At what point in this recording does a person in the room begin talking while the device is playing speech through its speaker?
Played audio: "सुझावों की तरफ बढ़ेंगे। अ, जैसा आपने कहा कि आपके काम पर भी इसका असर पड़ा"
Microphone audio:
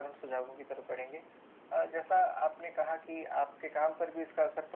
none

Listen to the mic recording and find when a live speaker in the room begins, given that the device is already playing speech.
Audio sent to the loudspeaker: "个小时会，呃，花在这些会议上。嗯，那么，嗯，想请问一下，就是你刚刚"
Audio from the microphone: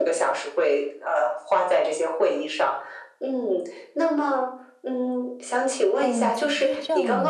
6.0 s

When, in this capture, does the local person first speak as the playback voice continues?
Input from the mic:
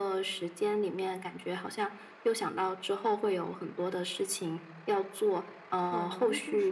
5.7 s

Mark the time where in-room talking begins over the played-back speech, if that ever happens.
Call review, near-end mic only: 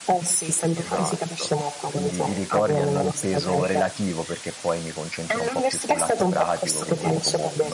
0.7 s

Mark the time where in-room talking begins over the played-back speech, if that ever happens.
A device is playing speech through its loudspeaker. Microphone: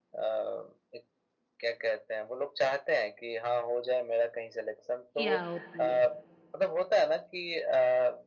5.1 s

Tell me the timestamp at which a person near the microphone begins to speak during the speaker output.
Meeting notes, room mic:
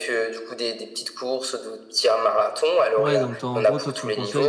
3.0 s

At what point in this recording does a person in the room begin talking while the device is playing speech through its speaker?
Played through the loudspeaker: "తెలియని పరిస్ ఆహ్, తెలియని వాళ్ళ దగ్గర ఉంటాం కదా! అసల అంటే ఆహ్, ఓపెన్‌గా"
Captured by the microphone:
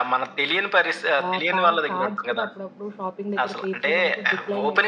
1.2 s

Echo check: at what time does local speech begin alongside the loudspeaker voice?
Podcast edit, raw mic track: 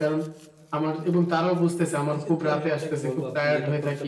2.1 s

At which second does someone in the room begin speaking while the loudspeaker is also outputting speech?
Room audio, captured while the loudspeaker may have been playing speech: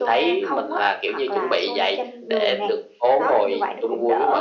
none

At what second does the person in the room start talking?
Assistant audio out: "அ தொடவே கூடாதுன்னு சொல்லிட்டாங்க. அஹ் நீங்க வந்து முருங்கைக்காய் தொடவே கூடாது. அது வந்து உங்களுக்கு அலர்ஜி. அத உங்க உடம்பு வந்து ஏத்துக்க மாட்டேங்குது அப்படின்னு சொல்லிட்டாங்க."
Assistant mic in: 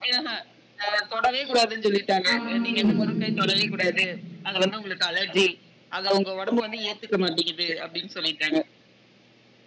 2.3 s

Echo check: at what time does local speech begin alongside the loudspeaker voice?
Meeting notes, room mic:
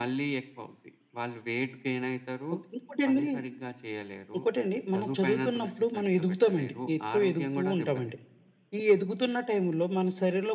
none

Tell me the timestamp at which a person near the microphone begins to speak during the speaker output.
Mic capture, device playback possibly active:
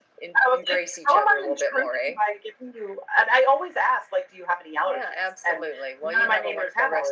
none

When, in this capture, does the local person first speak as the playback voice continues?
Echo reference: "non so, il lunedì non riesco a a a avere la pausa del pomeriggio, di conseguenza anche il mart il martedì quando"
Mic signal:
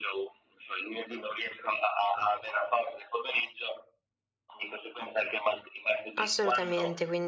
6.2 s

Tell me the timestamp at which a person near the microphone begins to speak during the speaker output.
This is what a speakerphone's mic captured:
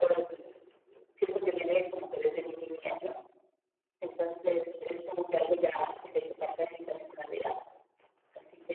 none

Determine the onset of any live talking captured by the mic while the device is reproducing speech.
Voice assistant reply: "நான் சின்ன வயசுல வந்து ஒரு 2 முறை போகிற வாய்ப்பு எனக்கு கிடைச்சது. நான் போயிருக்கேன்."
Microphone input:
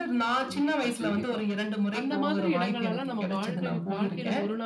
0.4 s

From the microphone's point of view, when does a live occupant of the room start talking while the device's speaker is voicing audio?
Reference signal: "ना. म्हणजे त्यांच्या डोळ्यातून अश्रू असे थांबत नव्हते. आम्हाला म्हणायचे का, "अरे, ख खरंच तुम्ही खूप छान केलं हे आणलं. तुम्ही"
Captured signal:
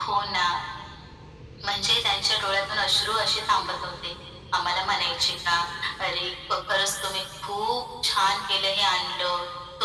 none

